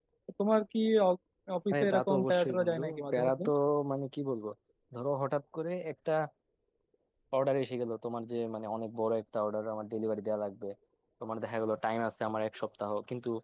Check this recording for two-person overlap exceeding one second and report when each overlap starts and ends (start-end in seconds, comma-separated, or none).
1.7-3.4